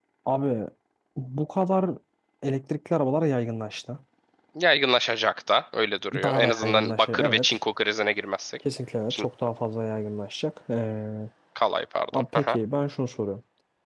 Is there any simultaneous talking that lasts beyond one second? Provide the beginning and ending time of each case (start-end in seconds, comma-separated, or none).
6.2-7.6